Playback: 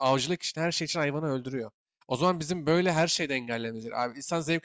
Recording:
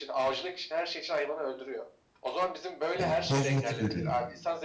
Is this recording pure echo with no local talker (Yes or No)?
No